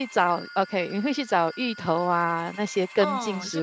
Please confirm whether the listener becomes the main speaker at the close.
Yes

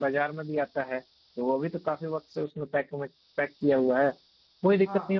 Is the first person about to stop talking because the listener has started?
No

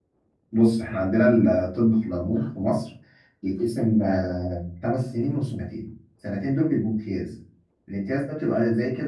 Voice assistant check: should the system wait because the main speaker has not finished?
Yes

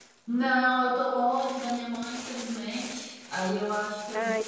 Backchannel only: Yes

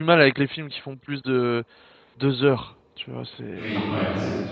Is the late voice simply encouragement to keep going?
No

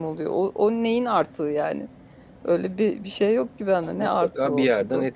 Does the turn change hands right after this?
Yes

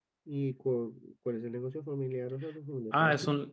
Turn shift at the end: Yes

